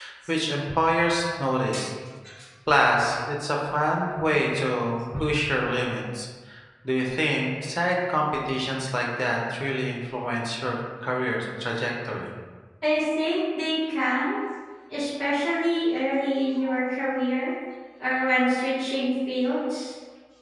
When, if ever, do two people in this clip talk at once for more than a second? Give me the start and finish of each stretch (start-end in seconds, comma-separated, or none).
none